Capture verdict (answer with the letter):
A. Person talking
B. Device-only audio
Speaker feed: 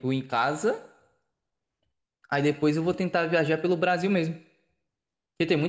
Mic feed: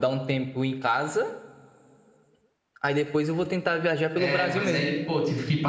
A